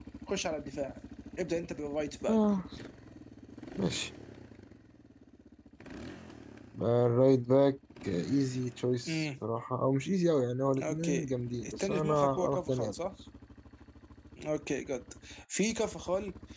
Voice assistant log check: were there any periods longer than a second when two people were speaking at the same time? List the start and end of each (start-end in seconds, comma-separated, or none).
11.6-12.9